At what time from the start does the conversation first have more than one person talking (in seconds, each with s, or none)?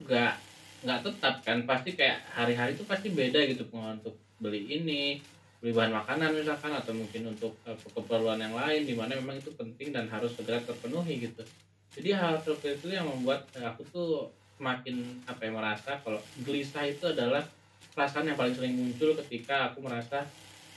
none